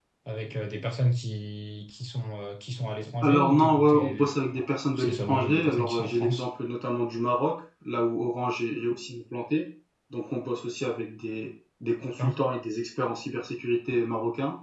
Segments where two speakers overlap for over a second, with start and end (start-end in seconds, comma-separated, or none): 3.2-4.5, 5.0-6.4